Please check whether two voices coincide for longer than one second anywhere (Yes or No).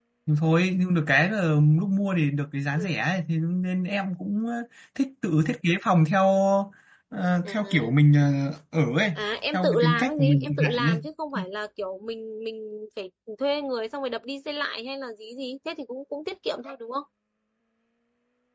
Yes